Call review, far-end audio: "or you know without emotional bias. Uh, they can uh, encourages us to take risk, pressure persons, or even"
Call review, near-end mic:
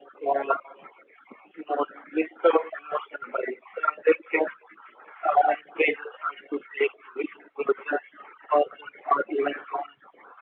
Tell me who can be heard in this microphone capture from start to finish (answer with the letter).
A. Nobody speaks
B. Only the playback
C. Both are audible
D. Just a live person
B